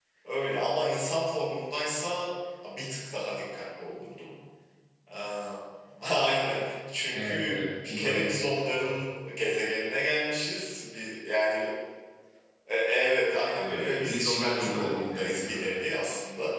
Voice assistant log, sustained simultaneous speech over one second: present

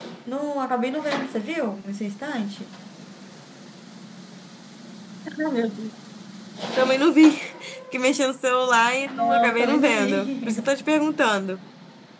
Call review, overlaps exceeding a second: present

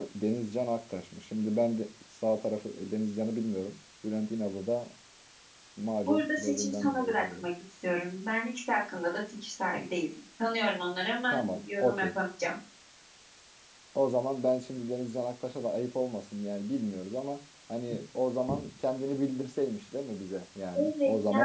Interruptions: present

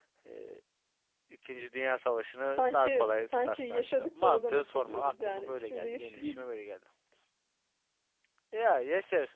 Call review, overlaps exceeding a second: present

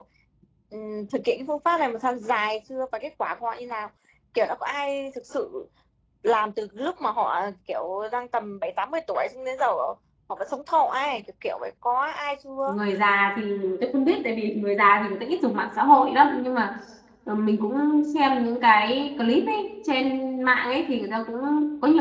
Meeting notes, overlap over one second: none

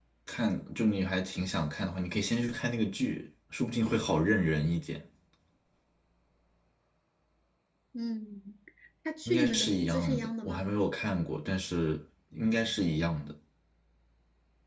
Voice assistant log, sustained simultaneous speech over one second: present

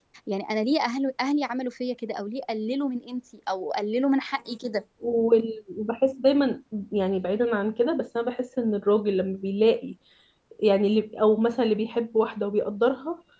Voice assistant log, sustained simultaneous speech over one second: none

